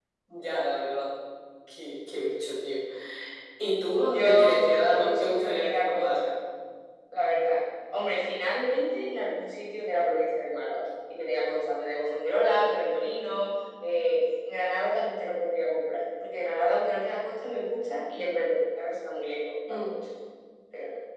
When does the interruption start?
4 s

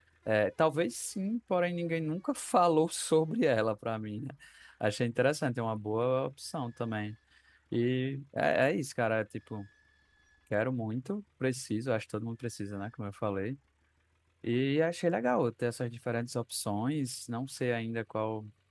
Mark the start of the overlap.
none

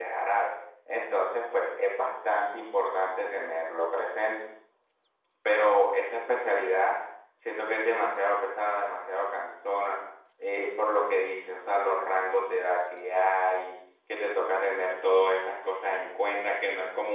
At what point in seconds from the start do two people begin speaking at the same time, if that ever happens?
none

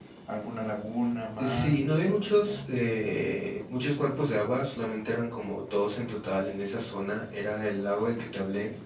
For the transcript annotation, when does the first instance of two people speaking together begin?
1 s

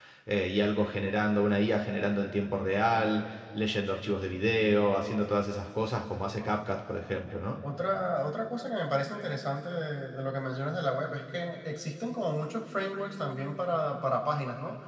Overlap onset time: none

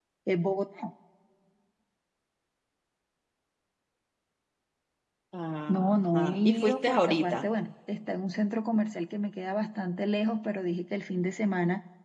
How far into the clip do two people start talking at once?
6 s

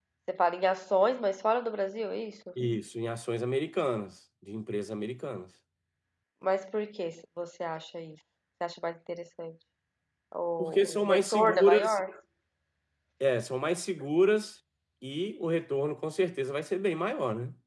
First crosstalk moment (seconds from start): 11 s

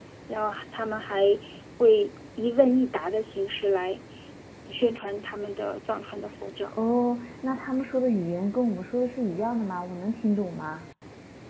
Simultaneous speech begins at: none

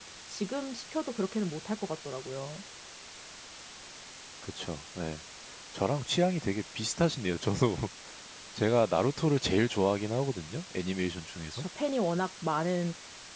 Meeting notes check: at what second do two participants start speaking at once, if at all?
none

